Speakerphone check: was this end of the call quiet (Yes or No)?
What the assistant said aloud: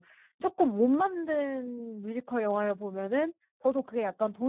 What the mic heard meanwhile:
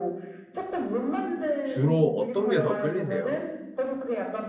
No